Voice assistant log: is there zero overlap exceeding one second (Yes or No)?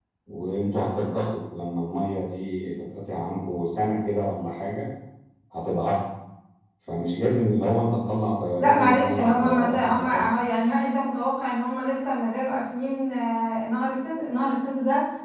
No